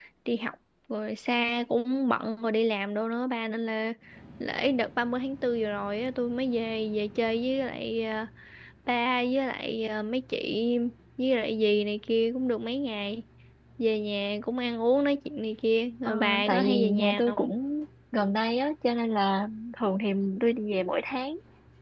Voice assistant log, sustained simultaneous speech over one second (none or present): present